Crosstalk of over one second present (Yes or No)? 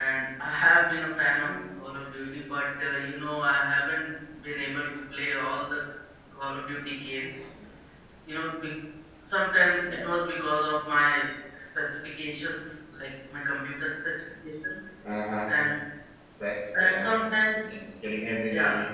No